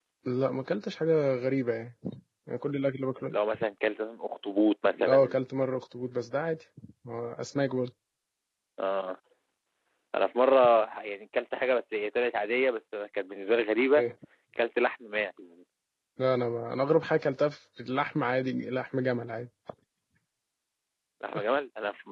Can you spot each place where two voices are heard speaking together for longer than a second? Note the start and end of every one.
none

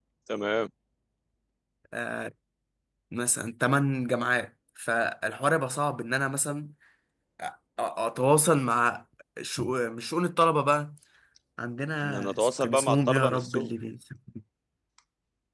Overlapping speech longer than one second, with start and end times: 12.0-13.7

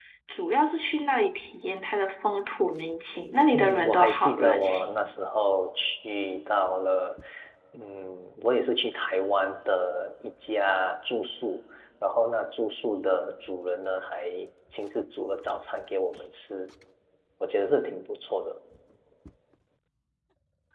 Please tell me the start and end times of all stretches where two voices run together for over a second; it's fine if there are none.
3.5-4.8

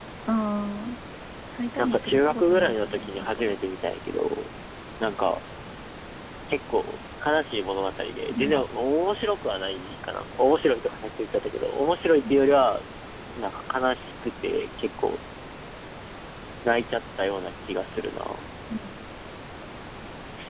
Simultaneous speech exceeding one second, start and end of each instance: 1.8-3.6

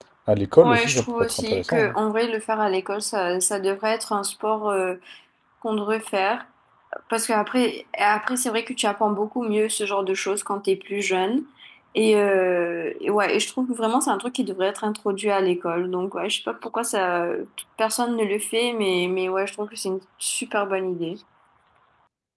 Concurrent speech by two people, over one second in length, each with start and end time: 0.6-1.9

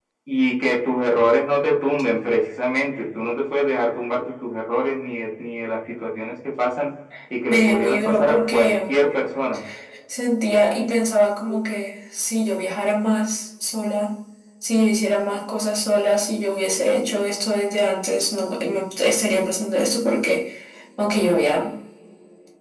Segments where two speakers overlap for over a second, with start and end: 7.5-9.0

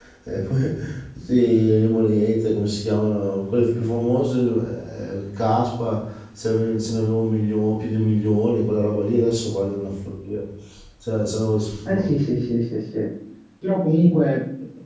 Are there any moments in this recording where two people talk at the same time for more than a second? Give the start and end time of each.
none

